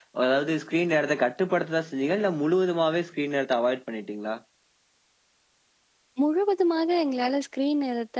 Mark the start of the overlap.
none

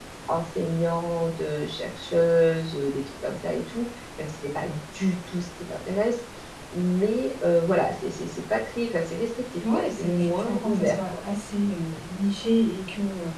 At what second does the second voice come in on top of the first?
9.6 s

